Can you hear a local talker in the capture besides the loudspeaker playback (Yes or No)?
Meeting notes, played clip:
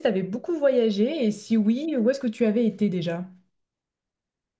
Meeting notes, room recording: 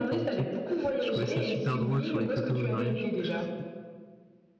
Yes